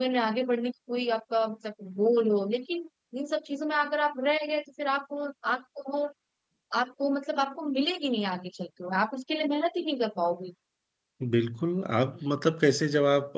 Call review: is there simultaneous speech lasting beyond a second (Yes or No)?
No